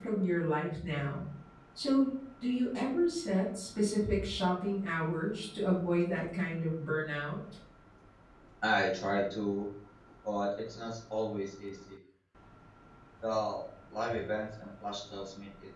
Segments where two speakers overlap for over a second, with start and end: none

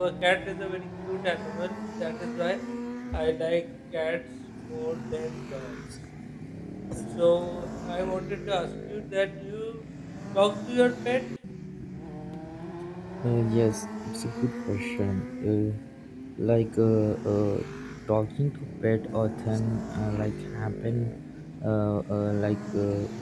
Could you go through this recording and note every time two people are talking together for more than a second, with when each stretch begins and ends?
none

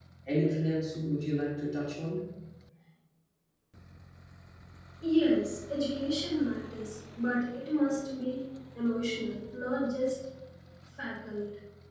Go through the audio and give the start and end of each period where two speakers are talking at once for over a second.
none

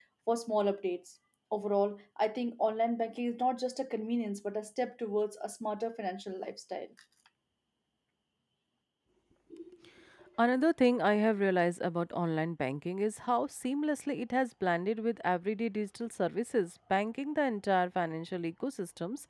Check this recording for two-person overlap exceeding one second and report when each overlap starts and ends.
none

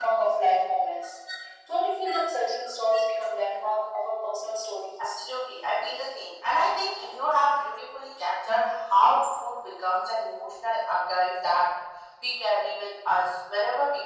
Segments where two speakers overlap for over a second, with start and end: none

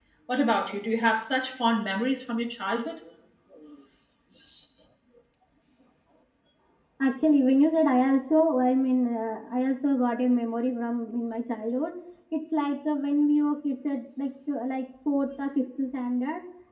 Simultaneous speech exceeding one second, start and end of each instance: none

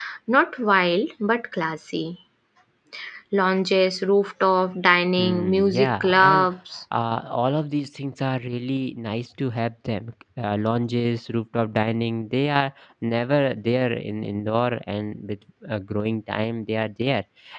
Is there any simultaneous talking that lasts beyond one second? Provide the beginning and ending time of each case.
5.2-6.5

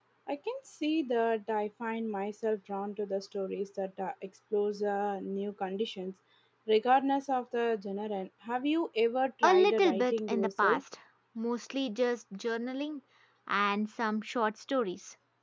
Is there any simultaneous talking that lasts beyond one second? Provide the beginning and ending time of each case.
9.4-10.8

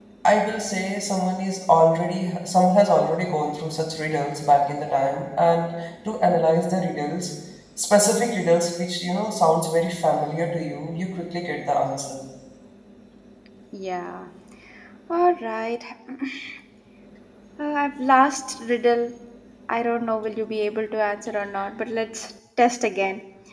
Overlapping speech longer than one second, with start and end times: none

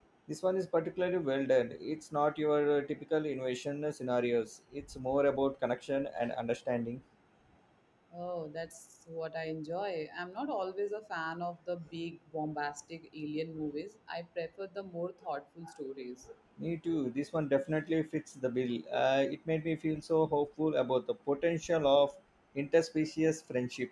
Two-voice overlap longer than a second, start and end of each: none

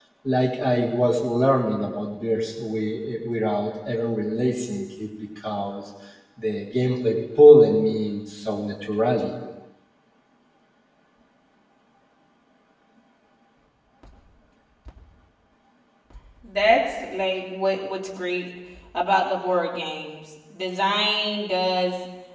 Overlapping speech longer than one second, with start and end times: none

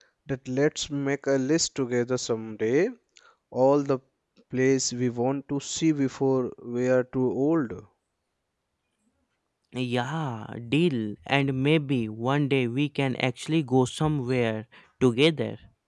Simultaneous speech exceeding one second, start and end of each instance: none

